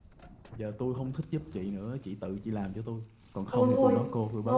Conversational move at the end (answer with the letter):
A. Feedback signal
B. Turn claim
B